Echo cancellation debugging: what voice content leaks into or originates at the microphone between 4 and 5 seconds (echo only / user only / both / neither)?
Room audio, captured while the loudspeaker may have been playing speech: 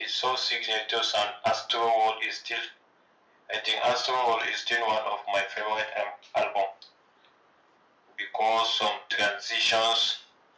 echo only